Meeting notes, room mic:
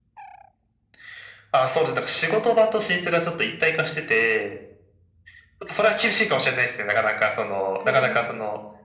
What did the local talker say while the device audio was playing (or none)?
ぜひ。